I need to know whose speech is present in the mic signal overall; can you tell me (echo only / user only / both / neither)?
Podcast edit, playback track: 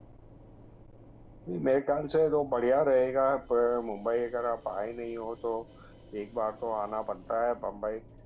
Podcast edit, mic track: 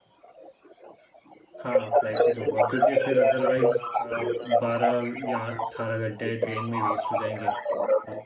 both